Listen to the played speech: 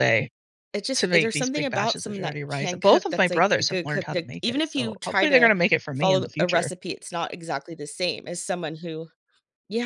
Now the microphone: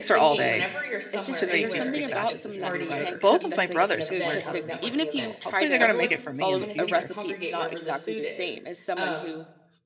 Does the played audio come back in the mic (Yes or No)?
Yes